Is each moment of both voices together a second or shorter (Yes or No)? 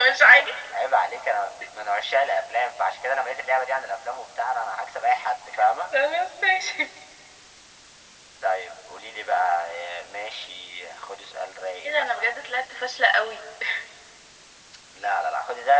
Yes